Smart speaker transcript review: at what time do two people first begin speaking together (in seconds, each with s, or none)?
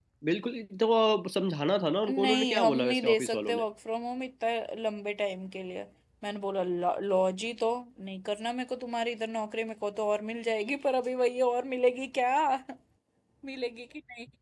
2.0 s